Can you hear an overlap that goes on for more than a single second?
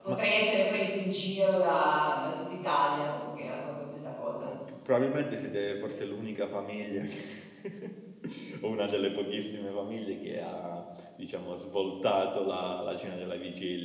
No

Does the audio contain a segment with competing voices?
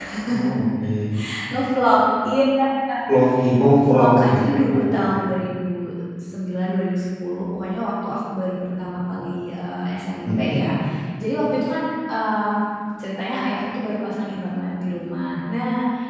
Yes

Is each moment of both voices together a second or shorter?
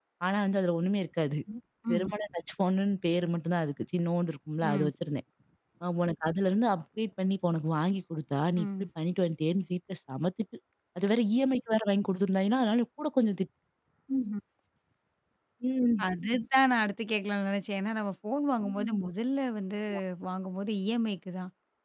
Yes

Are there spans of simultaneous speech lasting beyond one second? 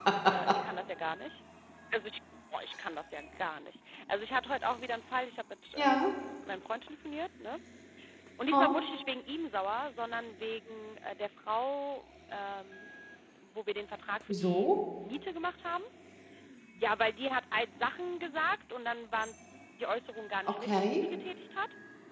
No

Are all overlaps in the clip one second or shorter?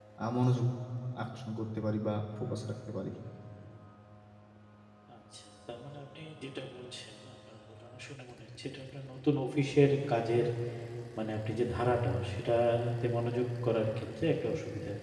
Yes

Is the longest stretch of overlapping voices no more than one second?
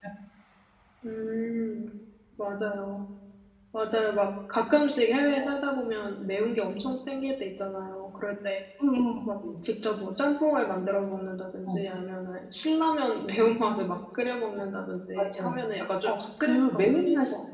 No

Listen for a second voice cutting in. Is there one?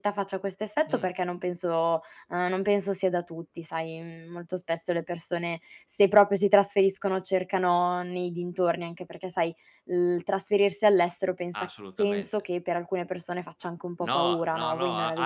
Yes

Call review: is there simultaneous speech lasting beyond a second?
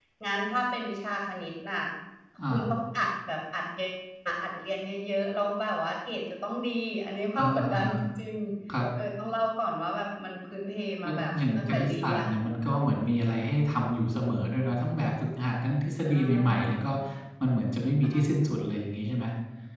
Yes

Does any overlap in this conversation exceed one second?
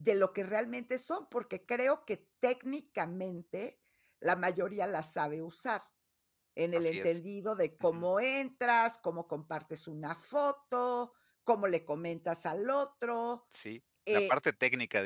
No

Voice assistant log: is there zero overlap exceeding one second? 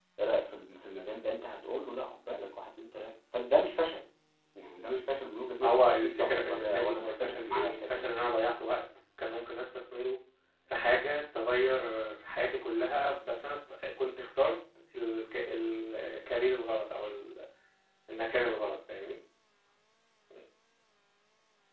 No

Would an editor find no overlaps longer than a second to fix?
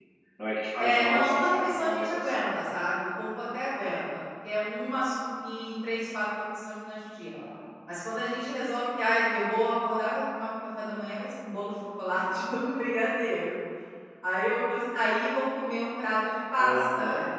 No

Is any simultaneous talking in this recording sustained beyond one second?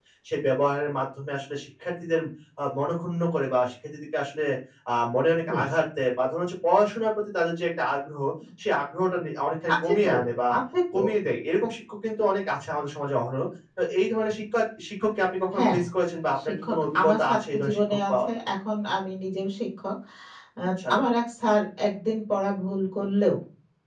Yes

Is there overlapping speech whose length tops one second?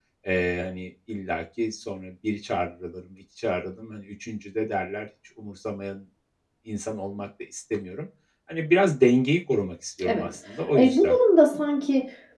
No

